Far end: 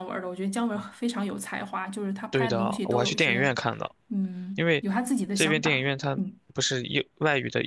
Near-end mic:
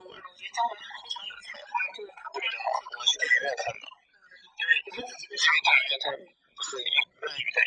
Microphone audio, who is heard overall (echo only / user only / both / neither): echo only